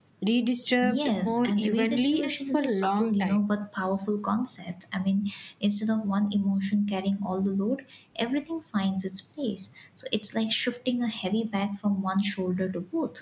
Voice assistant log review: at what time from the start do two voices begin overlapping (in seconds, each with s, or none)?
0.8 s